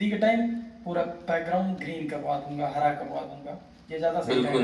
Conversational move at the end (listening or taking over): taking over